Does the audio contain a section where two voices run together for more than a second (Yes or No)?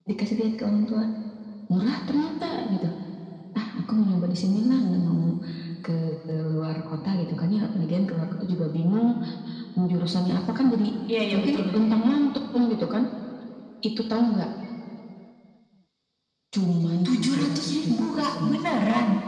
Yes